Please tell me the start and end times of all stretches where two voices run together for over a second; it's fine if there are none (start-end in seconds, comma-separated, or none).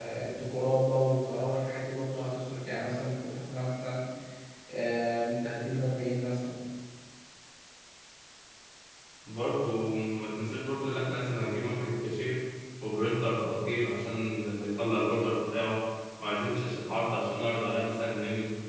none